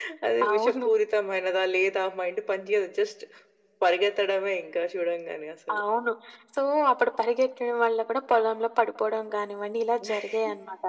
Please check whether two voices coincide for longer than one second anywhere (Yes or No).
No